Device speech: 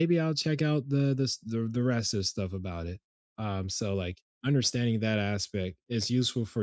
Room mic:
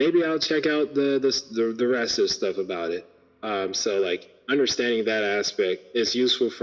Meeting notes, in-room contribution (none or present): none